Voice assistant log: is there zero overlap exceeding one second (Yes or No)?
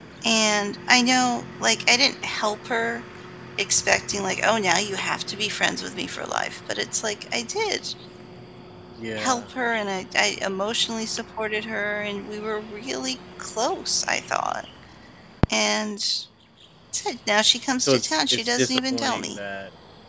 No